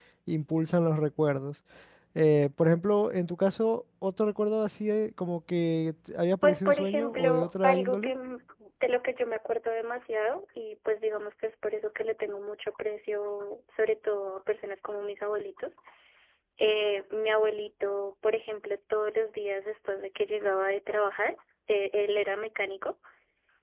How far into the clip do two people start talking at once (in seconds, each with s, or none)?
6.4 s